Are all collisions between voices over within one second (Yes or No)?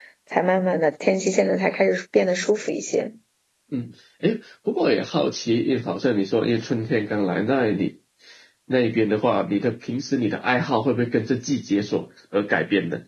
Yes